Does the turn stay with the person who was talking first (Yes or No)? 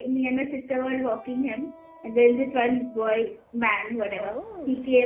Yes